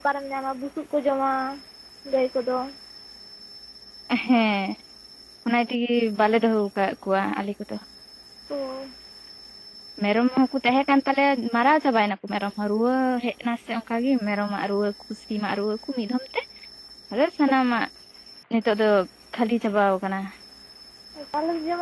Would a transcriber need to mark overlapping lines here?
No

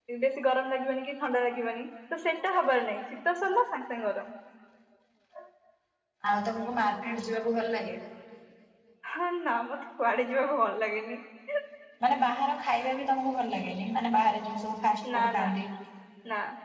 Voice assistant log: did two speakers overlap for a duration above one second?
No

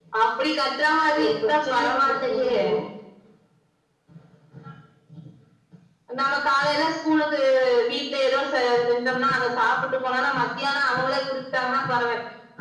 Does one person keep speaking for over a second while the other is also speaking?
Yes, from 1.2 s

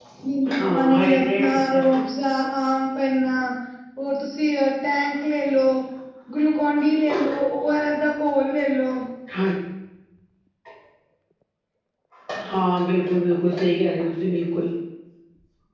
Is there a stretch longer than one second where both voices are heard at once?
Yes, from 0.6 s

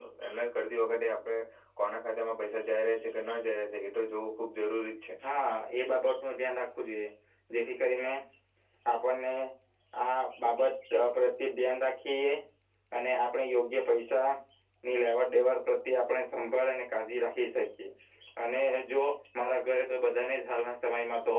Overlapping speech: No

